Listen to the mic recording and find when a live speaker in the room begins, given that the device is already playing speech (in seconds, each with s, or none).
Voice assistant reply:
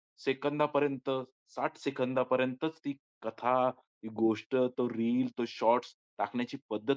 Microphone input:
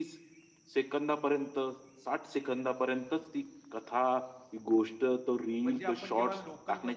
5.6 s